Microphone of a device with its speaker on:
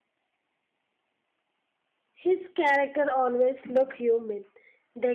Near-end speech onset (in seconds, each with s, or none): 2.1 s